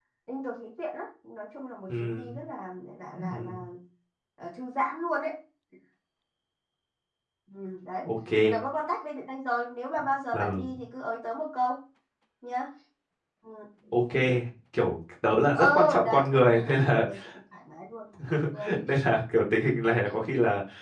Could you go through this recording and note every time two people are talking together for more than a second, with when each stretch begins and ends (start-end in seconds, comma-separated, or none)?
15.5-17.0